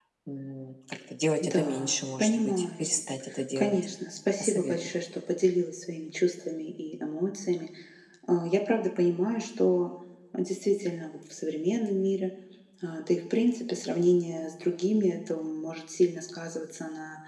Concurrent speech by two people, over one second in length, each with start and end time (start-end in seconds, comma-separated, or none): 1.4-2.9